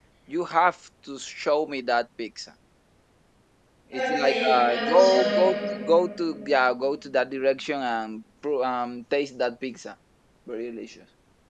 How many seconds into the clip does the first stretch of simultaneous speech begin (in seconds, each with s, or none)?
3.9 s